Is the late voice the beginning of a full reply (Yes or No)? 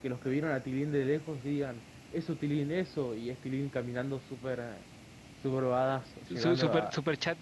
Yes